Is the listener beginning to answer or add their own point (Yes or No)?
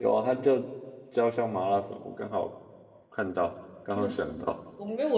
Yes